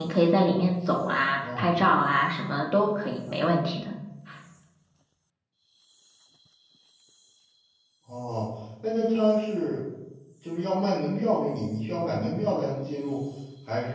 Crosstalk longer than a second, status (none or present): none